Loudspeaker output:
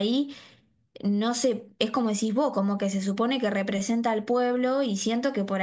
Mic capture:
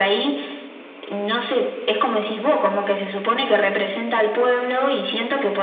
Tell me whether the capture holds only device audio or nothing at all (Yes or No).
Yes